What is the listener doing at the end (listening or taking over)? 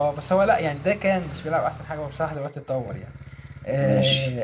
listening